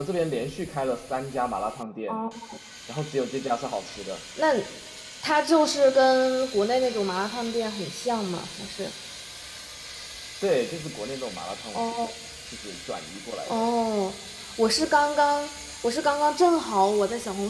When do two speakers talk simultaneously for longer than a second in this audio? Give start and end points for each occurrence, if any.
none

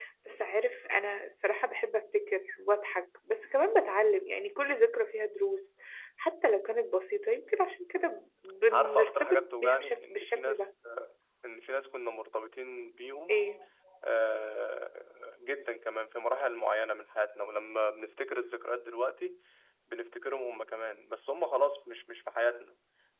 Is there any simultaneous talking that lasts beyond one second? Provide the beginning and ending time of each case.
8.7-10.7

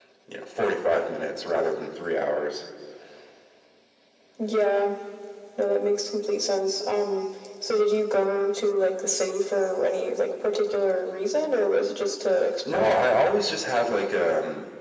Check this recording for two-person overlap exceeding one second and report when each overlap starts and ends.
none

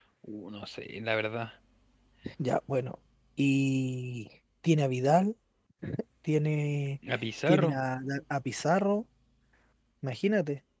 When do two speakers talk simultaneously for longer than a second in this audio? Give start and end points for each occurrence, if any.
none

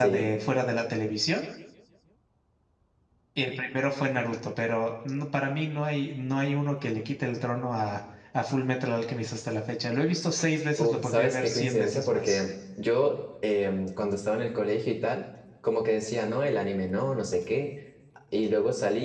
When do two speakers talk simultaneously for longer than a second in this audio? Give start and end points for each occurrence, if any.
10.8-12.4

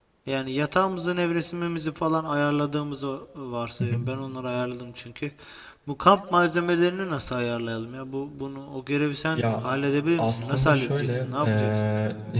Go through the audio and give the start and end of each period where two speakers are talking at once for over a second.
10.2-11.7

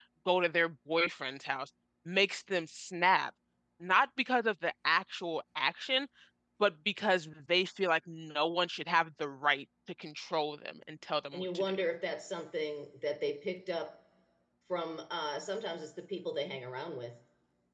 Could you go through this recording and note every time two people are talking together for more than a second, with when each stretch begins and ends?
none

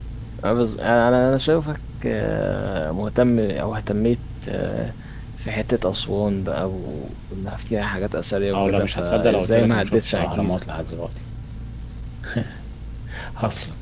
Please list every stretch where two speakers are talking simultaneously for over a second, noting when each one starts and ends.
8.5-10.6

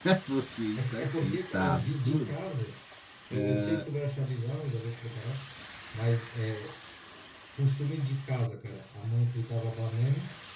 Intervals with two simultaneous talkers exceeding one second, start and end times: 0.8-2.4

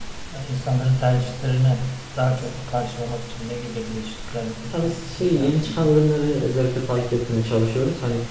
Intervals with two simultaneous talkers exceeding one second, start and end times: 4.7-5.9

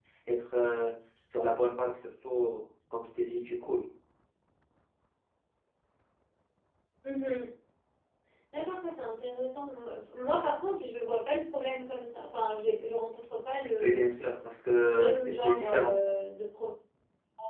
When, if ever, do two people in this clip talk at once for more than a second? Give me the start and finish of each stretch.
14.8-16.0

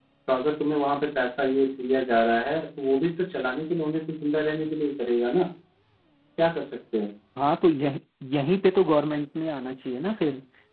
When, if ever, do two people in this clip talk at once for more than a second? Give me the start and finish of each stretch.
none

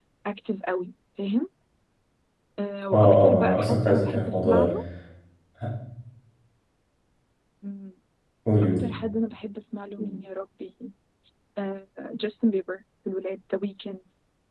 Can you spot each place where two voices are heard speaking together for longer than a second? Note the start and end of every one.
2.9-4.7

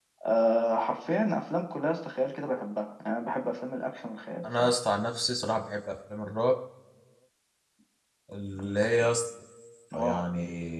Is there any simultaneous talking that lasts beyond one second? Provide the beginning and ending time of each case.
none

